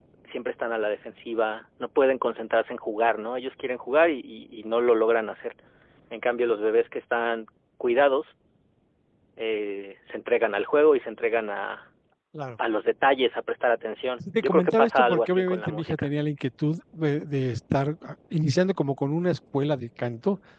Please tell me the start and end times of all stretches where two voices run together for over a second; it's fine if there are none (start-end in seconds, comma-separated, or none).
14.2-16.1